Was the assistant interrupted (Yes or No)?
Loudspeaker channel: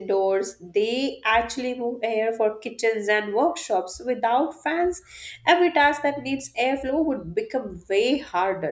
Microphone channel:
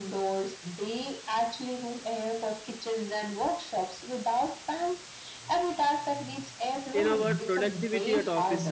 Yes